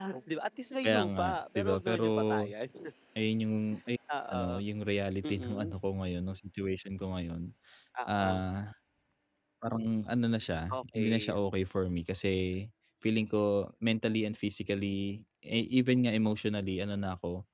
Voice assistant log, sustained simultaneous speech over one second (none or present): present